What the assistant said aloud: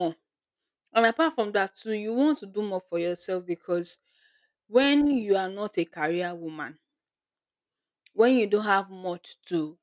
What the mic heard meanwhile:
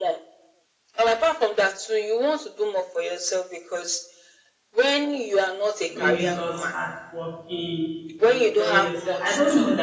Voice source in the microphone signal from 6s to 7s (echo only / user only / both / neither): both